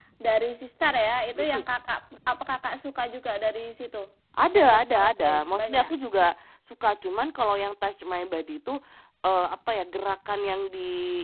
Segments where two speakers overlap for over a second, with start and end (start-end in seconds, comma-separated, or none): 4.5-5.9